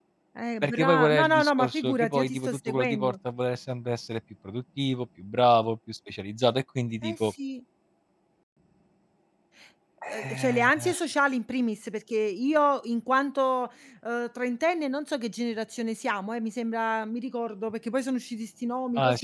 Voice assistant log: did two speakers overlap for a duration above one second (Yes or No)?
Yes